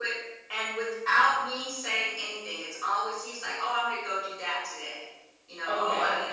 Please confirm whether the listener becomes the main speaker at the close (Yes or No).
Yes